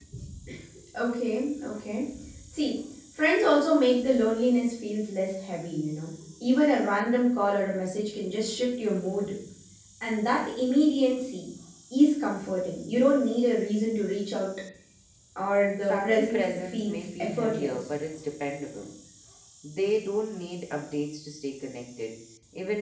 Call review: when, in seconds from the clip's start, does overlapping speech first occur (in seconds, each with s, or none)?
15.8 s